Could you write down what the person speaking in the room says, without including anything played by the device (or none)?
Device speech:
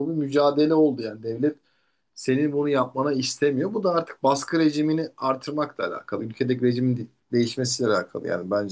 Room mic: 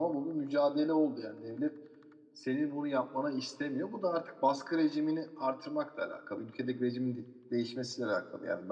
none